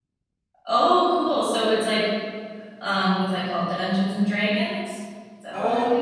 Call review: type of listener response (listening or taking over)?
taking over